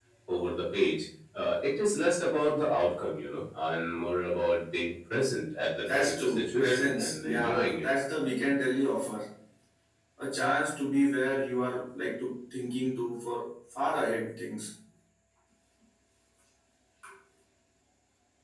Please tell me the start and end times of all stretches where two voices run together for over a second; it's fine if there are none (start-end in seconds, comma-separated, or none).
5.9-7.9